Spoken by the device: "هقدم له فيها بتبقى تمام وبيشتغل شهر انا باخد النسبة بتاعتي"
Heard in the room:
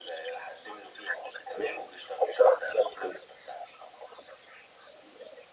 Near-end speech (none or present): none